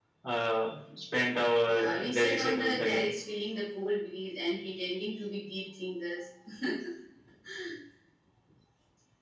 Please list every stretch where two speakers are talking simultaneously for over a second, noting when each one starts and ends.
1.6-3.1

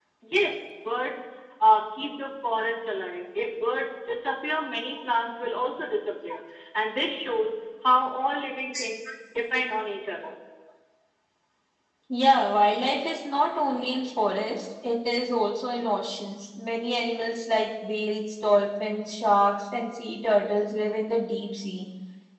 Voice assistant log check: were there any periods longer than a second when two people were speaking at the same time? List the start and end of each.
none

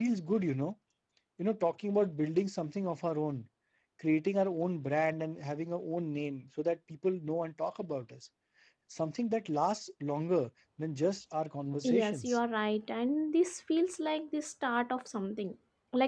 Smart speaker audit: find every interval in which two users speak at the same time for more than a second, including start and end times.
none

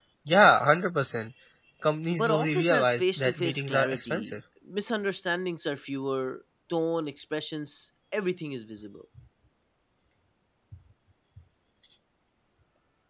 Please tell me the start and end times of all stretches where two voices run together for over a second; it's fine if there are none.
2.1-4.4

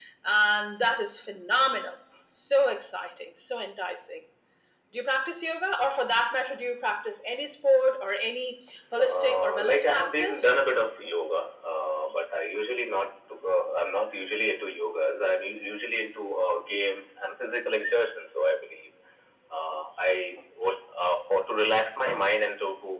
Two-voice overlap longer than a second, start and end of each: 9.0-10.5

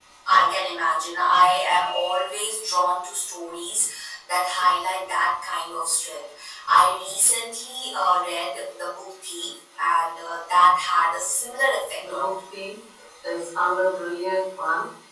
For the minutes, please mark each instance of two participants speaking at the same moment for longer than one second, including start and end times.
none

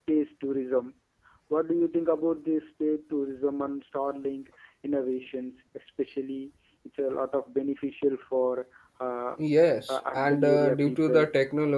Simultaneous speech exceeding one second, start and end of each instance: 9.9-11.3

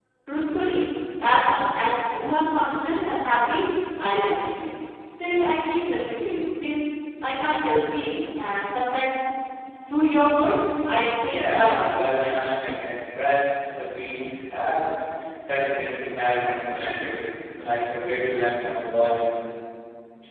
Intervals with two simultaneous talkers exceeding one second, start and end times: 11.2-12.4

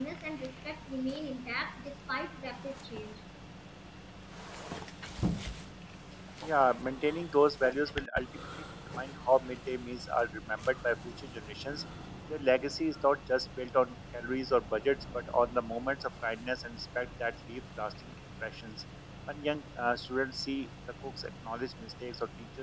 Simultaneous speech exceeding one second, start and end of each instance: none

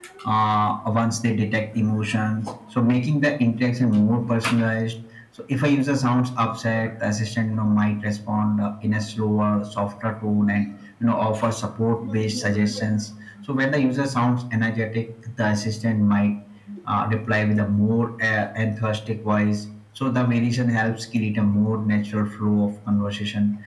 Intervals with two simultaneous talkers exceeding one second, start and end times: none

